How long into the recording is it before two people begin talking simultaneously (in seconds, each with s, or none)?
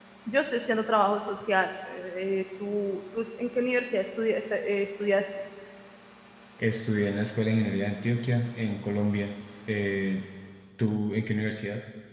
none